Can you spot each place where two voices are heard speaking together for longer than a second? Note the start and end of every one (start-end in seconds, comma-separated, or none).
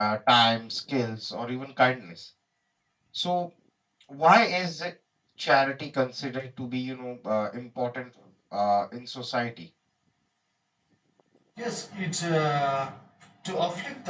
none